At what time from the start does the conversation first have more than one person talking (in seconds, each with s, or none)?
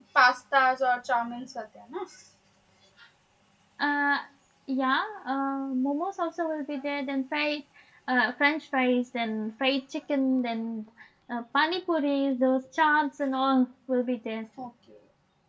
none